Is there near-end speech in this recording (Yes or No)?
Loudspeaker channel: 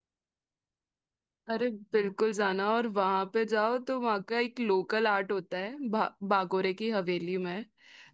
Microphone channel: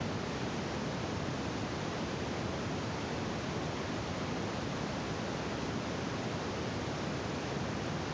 No